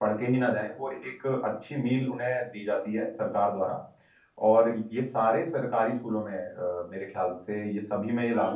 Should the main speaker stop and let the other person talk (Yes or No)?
Yes